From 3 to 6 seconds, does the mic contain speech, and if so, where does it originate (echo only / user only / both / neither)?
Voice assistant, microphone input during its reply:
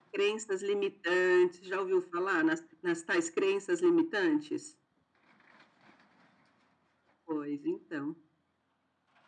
echo only